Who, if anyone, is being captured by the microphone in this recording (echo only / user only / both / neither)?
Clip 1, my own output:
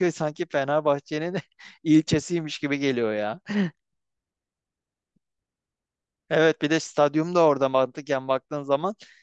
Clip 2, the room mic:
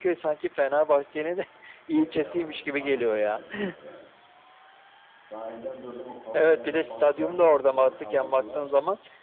both